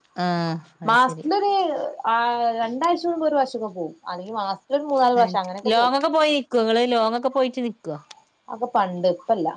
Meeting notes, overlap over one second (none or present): none